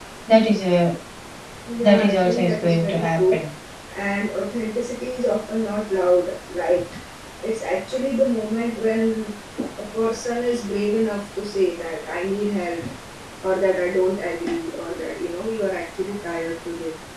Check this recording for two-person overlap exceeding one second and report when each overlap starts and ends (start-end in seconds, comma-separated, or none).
1.8-3.4